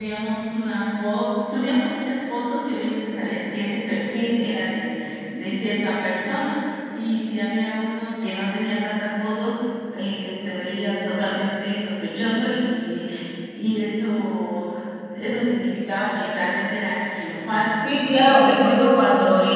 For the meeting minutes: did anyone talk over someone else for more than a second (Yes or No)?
No